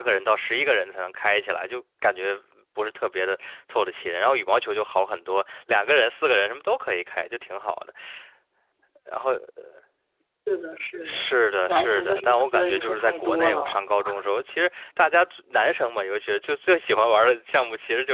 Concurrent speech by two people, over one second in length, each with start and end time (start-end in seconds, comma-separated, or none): 11.7-13.8